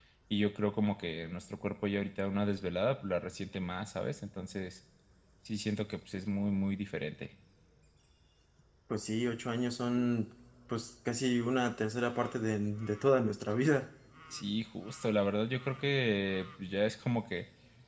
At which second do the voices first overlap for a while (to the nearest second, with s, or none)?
none